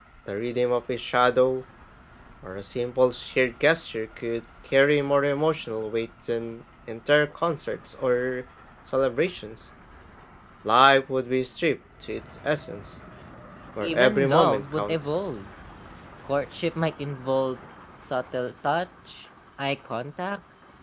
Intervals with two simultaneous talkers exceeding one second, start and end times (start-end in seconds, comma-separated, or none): 13.8-15.2